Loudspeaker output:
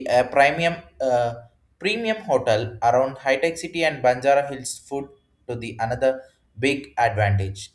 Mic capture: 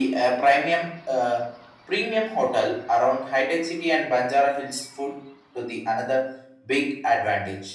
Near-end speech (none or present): none